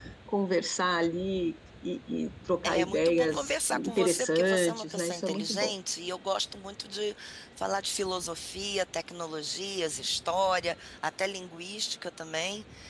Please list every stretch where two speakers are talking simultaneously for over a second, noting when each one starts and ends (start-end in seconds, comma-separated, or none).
2.6-5.7